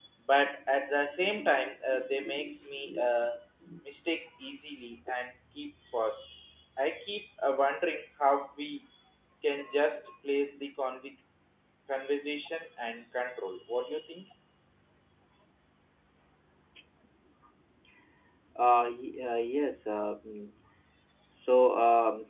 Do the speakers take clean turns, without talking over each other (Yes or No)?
Yes